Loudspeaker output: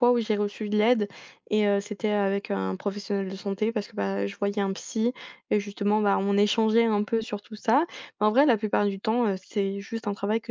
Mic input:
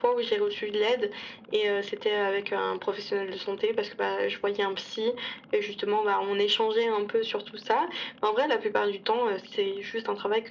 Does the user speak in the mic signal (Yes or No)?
No